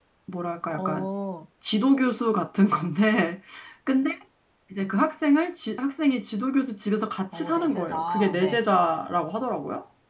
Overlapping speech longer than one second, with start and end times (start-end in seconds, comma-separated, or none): 7.3-8.6